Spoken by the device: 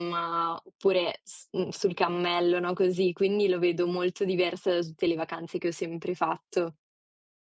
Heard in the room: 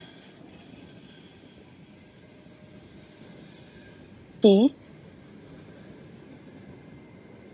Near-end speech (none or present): present